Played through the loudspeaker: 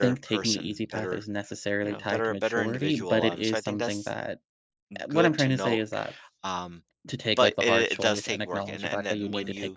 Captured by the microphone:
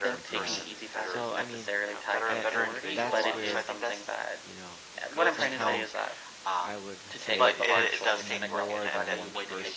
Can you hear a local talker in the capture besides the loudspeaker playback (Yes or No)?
Yes